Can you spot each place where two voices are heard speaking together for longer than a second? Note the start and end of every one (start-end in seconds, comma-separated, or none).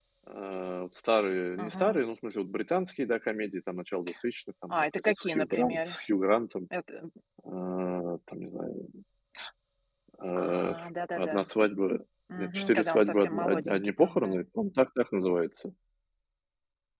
4.7-6.0, 12.4-14.4